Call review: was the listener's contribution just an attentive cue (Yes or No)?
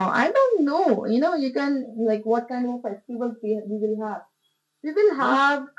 Yes